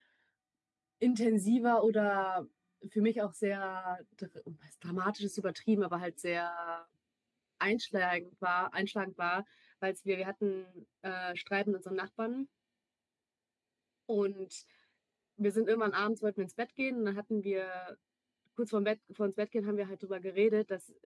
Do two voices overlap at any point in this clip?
No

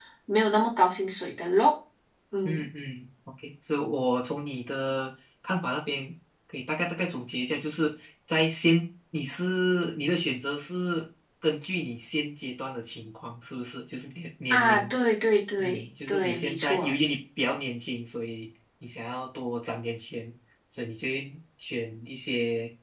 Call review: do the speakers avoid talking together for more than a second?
No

